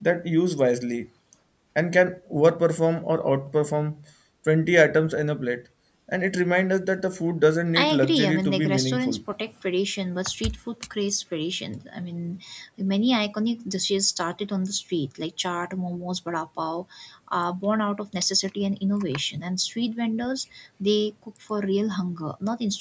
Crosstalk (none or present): present